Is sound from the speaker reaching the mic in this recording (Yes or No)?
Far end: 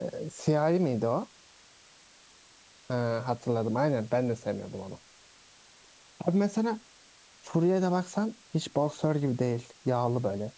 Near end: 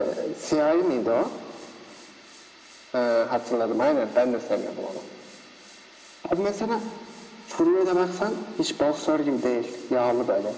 Yes